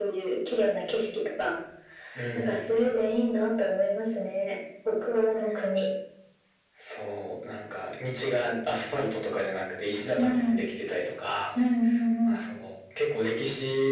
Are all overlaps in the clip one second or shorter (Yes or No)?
Yes